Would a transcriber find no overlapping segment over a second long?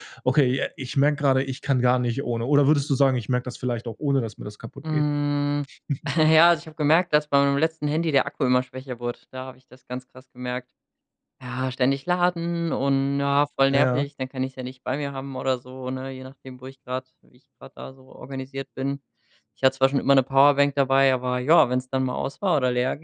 Yes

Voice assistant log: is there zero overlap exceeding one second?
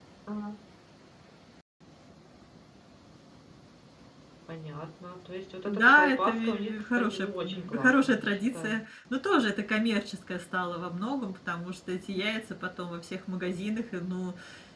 No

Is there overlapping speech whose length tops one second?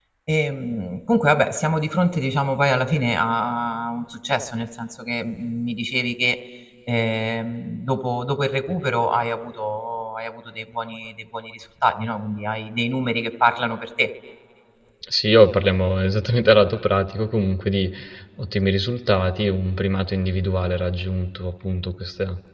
No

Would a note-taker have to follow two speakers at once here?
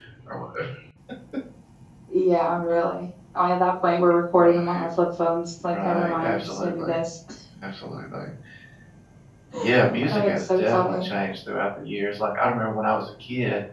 Yes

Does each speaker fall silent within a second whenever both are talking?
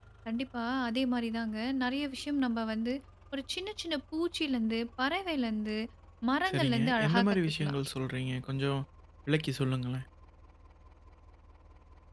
No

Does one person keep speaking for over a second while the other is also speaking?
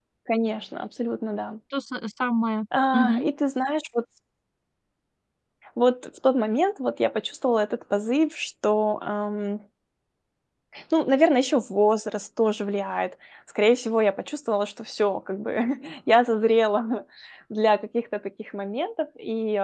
No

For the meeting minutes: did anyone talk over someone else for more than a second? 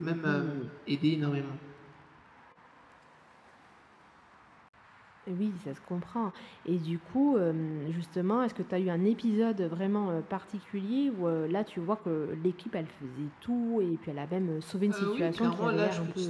Yes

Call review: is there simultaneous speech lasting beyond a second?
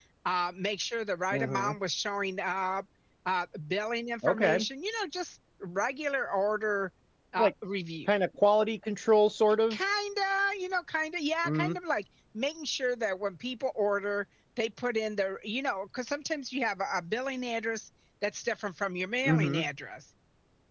No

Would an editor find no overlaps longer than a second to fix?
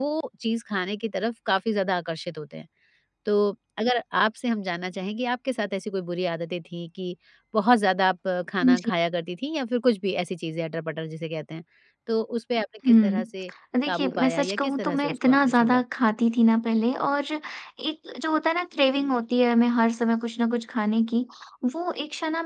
No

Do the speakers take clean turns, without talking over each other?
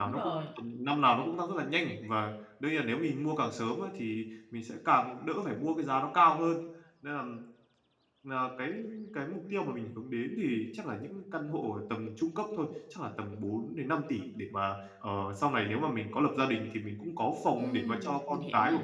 No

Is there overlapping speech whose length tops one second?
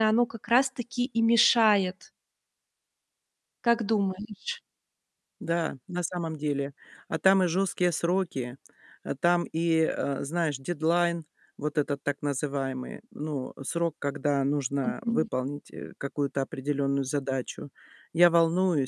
No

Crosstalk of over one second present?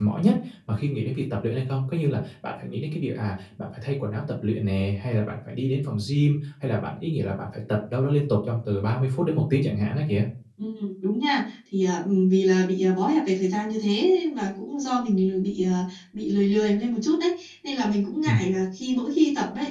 No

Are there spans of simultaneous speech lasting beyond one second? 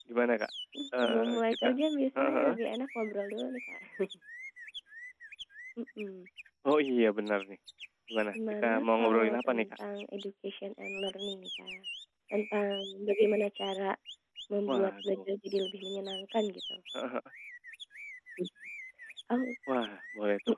Yes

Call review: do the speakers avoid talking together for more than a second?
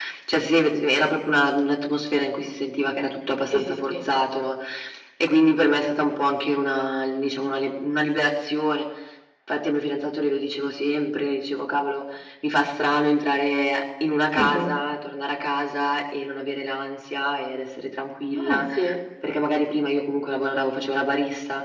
Yes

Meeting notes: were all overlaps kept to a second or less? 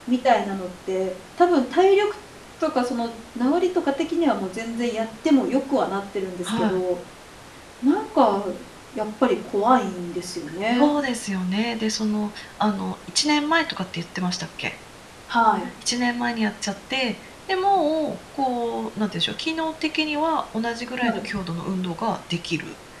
Yes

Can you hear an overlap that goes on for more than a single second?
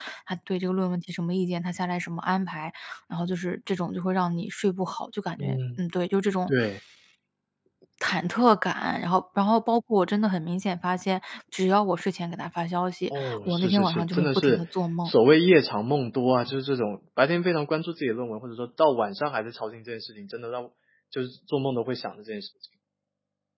Yes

